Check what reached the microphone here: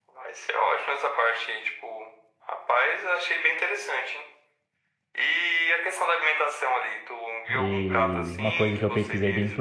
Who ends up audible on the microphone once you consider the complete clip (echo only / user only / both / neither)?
both